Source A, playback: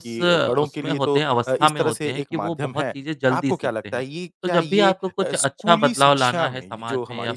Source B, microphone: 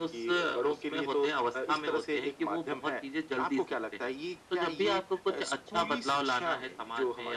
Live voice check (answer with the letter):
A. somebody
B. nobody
B